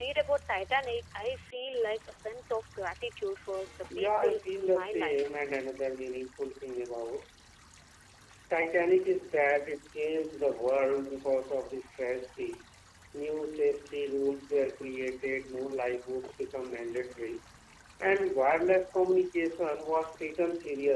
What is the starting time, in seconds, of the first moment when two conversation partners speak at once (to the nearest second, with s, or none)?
4 s